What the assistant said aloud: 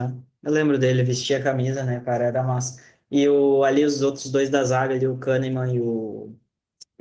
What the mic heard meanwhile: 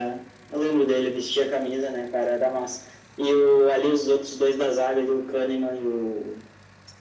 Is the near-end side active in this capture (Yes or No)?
No